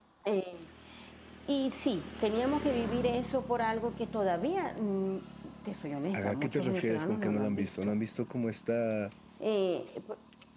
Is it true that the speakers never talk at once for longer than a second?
No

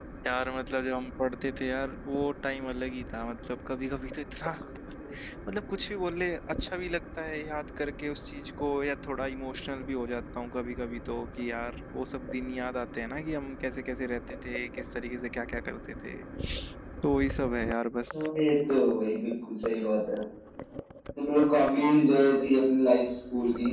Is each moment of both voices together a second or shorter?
Yes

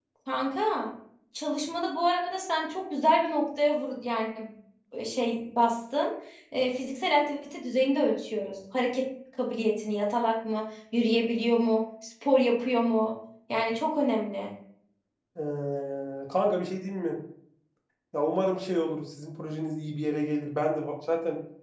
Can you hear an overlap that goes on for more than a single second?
No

